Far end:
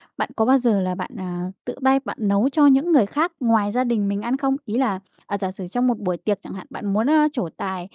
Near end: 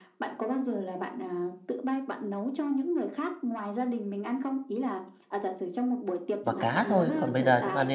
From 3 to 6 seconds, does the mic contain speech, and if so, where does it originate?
echo only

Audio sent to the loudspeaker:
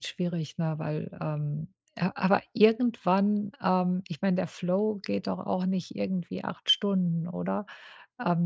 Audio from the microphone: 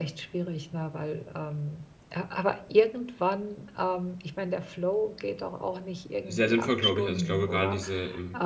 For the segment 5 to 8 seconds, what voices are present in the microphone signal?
both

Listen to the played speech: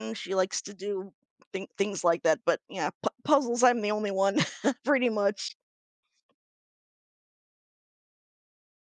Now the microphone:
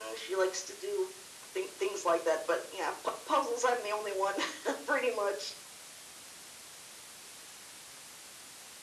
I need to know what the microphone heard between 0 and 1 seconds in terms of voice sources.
echo only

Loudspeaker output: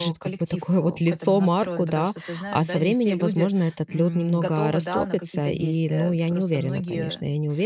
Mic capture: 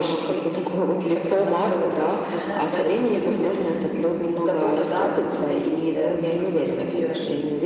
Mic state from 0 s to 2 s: echo only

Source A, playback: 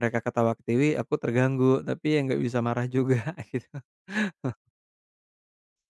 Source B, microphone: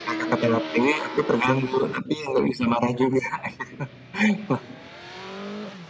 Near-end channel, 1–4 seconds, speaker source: echo only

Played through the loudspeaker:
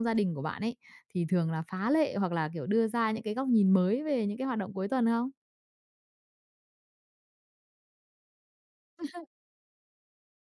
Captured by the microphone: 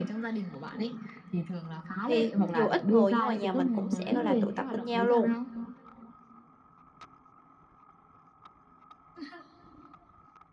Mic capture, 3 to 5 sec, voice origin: both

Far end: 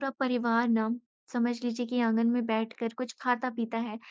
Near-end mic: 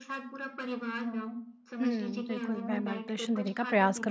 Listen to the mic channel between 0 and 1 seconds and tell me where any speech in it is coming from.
echo only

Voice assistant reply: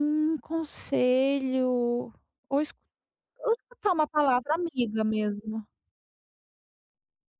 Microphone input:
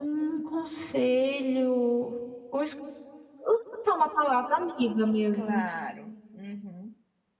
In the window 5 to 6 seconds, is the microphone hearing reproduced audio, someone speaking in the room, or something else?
both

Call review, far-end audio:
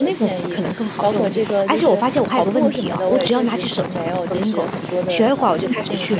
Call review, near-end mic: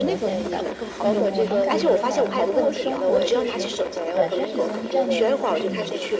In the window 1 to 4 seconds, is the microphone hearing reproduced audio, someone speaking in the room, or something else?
both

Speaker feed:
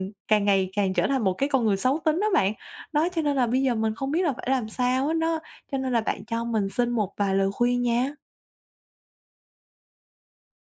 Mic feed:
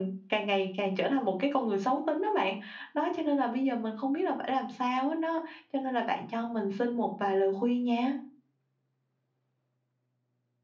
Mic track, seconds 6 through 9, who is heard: echo only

